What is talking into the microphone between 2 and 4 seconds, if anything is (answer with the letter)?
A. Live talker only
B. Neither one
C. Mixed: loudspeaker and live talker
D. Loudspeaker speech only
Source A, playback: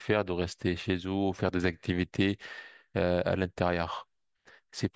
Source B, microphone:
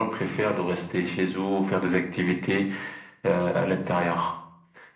D